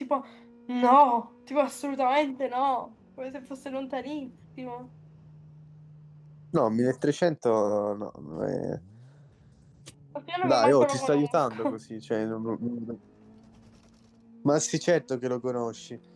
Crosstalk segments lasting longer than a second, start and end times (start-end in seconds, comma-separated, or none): 10.4-11.8